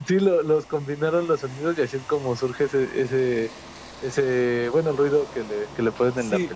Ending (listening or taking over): taking over